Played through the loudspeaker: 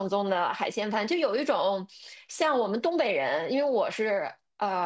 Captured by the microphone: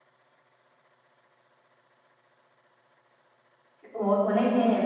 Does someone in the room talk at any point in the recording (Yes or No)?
Yes